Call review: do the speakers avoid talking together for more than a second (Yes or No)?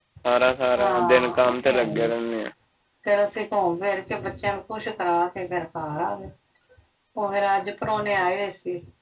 No